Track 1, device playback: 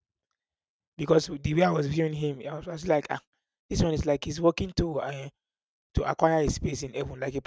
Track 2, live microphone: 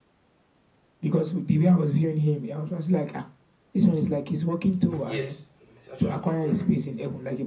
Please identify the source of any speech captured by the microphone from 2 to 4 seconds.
echo only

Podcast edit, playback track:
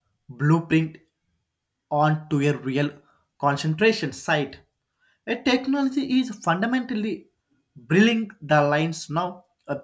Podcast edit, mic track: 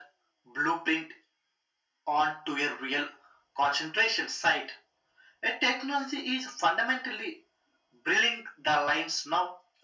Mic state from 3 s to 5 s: echo only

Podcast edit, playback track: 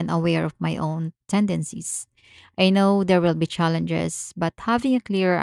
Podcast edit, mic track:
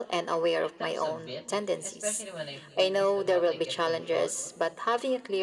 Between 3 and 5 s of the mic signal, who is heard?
both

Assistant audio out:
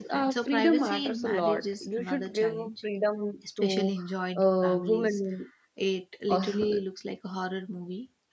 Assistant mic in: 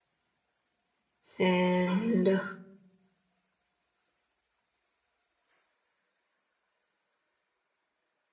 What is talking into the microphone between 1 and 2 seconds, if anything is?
user only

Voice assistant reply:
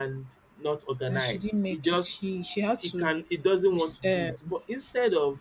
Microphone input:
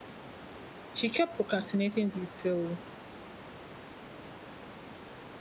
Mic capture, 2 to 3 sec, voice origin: user only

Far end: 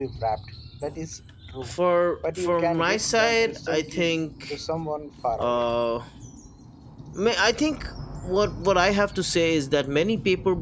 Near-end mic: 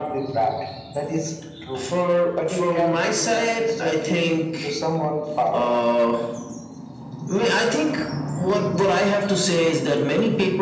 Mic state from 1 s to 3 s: echo only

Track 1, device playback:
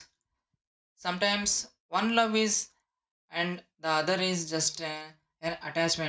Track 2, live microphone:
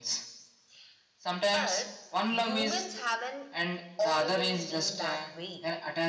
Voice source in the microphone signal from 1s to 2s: both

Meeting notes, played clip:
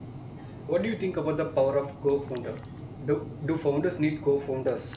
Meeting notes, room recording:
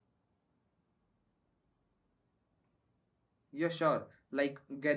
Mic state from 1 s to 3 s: neither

